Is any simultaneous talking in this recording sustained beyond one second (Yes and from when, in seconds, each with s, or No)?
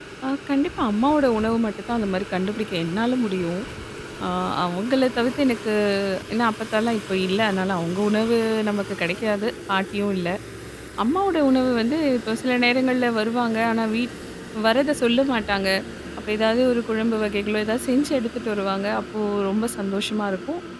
No